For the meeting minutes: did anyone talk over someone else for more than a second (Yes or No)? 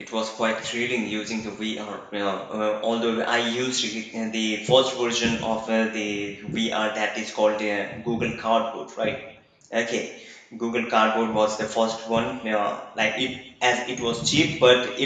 No